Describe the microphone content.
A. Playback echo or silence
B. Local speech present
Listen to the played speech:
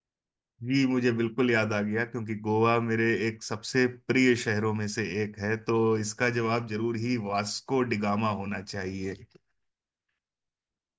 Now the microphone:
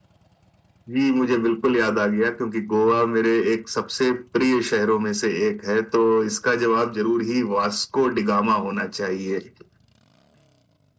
A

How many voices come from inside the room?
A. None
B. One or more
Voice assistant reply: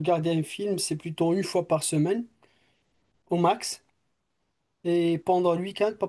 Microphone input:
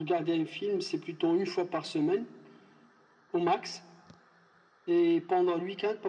A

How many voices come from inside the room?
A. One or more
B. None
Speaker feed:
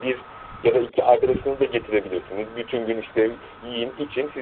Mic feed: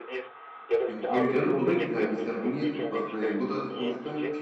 A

